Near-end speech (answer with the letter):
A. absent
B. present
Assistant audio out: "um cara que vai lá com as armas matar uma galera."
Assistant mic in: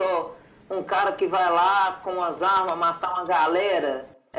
A